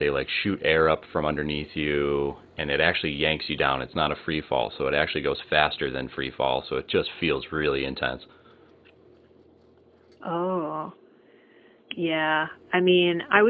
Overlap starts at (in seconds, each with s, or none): none